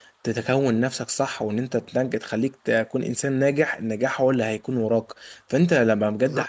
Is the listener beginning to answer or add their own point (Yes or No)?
No